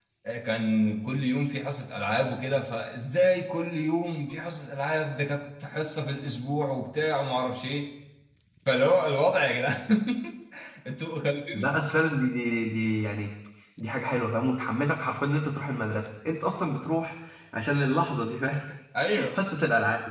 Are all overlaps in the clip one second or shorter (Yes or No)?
Yes